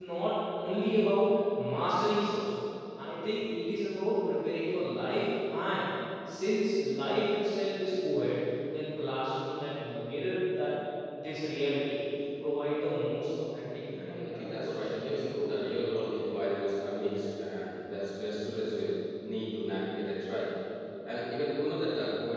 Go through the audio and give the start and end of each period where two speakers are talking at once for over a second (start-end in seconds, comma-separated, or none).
13.9-15.5